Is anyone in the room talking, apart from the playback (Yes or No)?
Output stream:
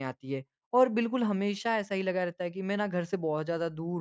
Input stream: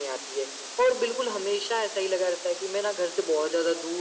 No